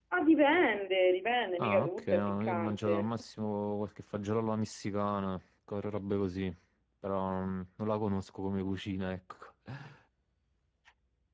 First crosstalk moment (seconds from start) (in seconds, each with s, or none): 1.6 s